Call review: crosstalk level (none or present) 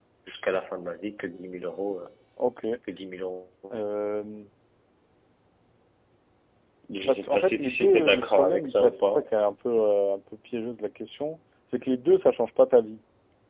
present